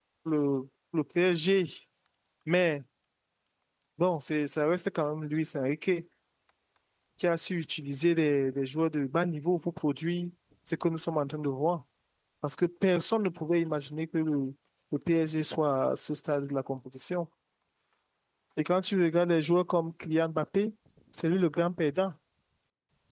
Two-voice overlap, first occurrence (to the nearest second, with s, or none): none